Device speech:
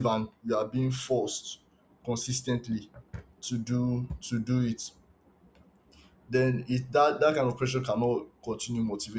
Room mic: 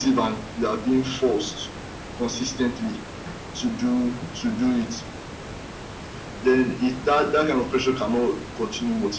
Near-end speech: none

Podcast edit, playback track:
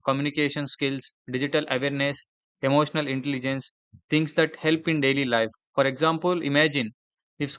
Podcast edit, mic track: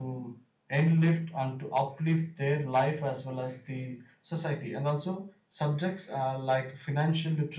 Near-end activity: present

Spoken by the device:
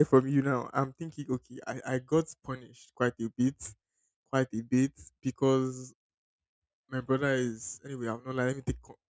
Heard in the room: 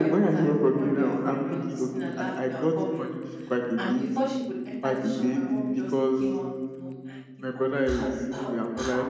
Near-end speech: present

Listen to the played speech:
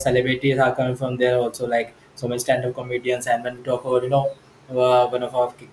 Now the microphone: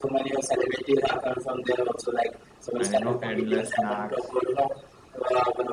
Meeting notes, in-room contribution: present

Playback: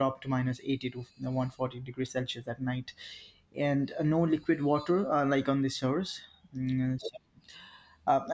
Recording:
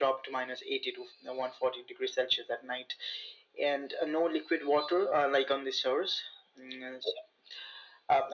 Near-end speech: none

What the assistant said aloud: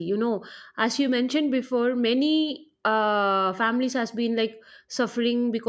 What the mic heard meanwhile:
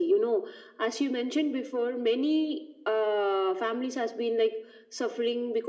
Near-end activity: none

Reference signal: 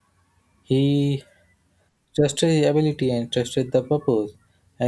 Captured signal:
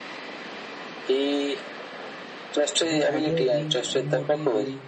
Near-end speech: present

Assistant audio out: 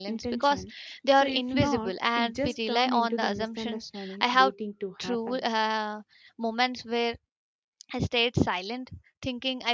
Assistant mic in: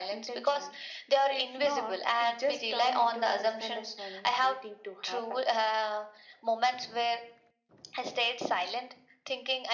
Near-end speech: none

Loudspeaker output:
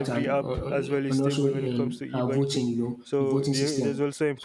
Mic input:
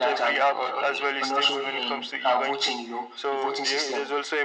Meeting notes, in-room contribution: none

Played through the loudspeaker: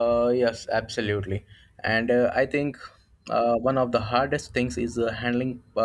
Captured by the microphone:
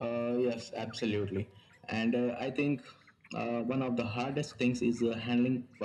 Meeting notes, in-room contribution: none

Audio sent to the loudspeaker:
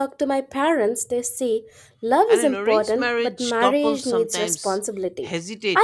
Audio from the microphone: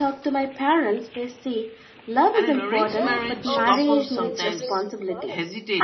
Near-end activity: present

